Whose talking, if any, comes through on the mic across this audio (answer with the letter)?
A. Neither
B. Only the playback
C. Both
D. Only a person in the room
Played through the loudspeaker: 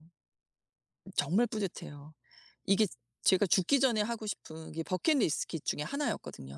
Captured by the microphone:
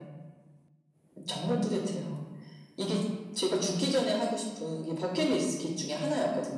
B